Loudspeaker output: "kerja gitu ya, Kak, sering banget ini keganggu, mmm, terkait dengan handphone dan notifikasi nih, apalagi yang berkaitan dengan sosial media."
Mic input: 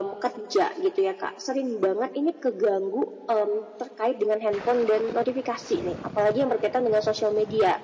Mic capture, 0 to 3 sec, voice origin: echo only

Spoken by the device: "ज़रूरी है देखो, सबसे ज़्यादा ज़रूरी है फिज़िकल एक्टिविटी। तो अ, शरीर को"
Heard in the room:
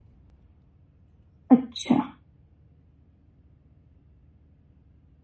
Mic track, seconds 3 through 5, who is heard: neither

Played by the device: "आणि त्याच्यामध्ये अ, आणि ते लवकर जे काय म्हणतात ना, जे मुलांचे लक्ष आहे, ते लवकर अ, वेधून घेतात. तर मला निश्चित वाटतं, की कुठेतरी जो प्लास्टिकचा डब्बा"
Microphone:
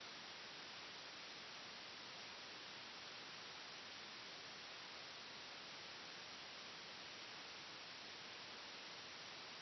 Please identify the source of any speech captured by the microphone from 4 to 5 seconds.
neither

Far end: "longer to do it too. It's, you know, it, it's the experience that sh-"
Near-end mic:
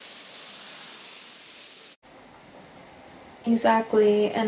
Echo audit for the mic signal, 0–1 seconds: neither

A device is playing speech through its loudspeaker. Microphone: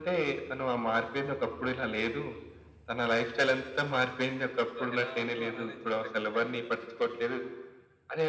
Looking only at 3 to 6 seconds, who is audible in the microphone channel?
both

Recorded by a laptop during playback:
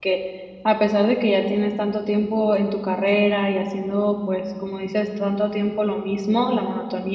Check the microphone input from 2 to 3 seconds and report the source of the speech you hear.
user only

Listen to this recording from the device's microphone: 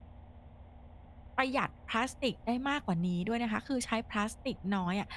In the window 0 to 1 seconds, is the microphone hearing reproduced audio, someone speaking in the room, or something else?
neither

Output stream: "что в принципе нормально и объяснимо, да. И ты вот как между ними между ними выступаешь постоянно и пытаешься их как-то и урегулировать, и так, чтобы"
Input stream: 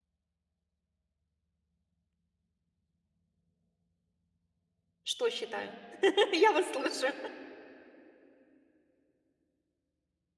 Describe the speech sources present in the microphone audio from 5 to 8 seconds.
user only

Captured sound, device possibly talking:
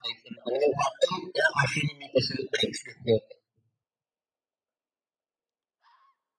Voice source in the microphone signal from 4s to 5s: neither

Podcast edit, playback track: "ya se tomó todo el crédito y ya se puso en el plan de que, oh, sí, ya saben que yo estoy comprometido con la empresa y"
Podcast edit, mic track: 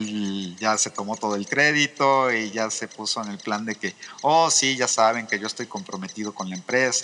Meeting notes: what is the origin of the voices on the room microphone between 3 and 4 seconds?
echo only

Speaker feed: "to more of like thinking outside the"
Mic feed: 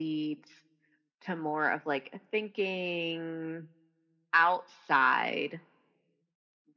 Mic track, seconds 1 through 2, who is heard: echo only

